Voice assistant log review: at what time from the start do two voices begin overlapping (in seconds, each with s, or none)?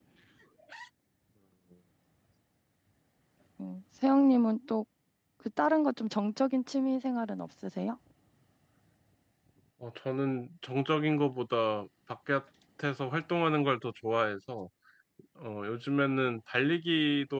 none